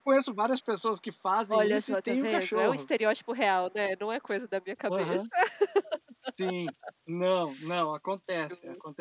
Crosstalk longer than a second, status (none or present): present